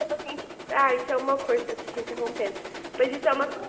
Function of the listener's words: listening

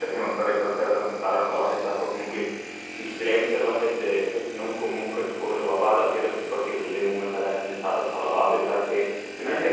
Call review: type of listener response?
listening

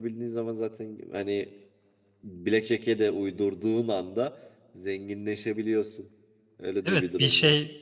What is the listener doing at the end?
taking over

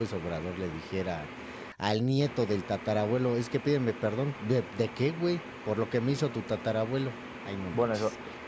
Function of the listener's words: taking over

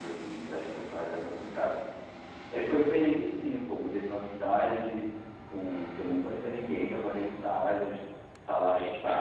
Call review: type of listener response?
taking over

